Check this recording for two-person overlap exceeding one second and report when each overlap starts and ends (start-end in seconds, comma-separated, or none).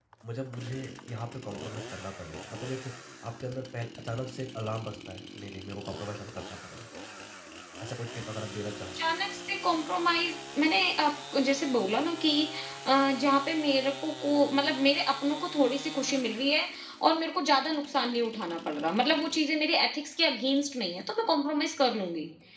none